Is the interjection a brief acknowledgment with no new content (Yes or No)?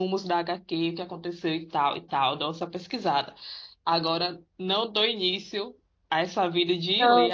No